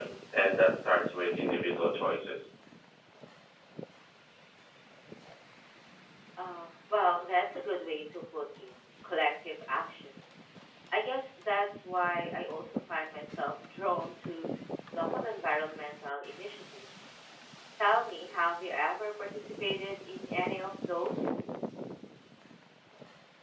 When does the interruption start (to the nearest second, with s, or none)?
none